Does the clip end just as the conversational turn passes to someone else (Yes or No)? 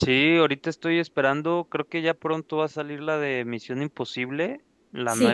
No